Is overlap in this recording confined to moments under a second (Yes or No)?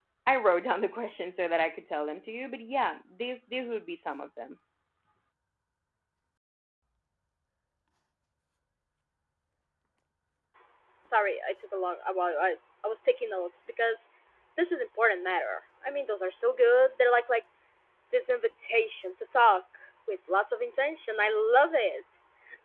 Yes